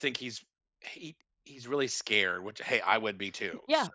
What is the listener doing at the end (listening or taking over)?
taking over